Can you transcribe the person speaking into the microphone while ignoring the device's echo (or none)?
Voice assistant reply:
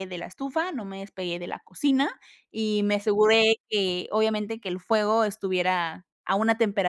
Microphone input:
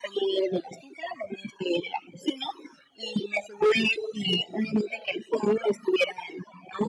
none